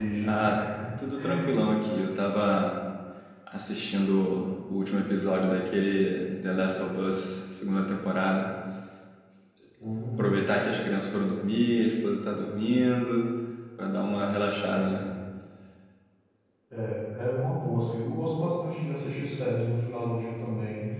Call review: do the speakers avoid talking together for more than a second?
Yes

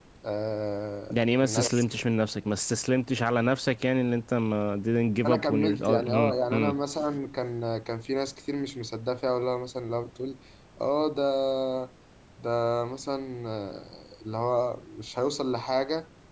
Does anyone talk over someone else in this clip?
Yes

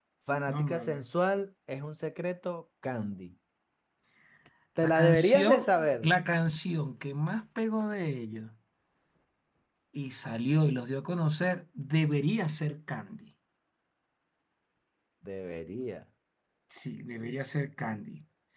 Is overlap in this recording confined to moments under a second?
No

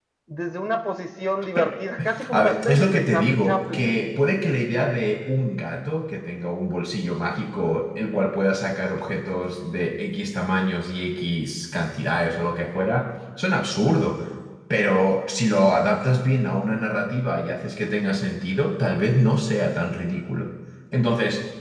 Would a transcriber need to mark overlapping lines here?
Yes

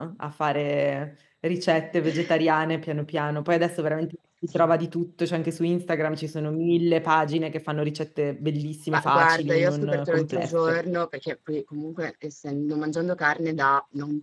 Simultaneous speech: Yes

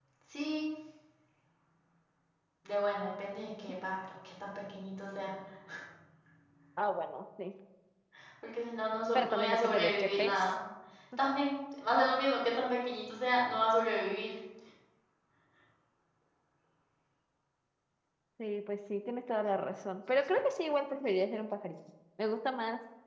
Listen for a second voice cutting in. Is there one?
Yes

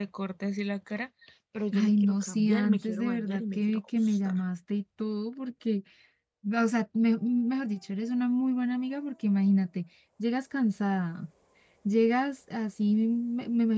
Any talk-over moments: Yes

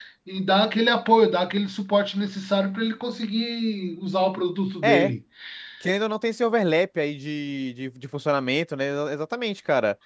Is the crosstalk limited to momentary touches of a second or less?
Yes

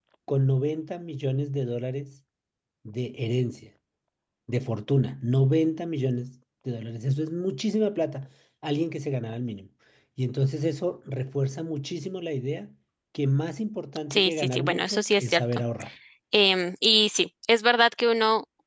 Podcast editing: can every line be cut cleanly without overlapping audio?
No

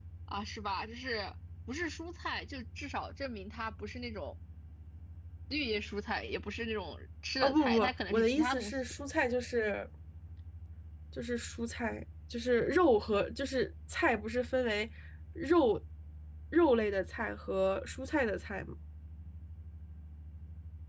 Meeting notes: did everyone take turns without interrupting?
No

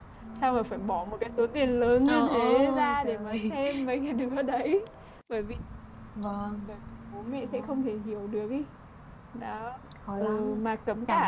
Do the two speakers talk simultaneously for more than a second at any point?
Yes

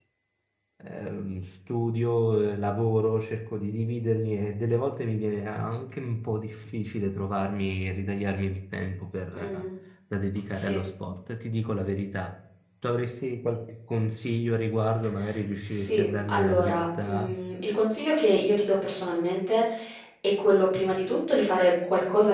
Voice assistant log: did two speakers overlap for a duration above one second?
Yes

